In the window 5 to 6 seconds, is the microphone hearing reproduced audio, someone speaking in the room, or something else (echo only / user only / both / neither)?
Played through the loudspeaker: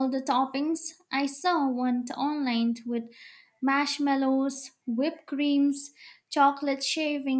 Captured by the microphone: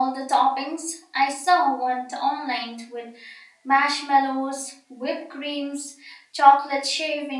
echo only